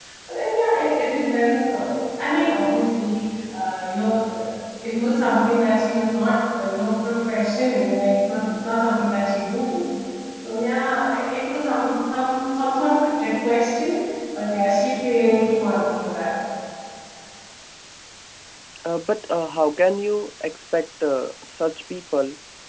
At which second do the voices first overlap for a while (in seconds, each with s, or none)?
none